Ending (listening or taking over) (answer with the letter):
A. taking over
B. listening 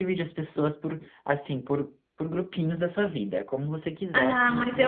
A